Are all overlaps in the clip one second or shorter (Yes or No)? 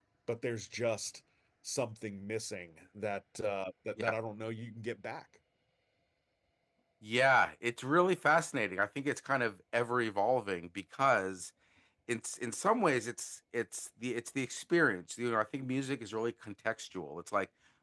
Yes